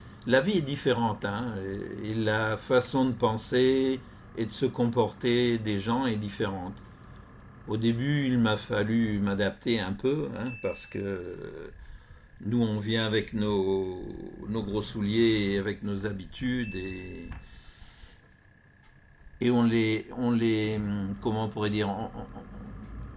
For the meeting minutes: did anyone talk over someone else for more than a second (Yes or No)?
No